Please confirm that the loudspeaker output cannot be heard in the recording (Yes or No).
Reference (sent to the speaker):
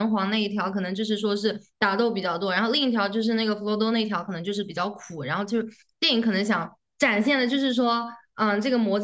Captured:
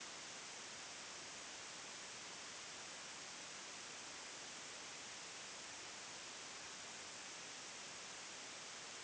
Yes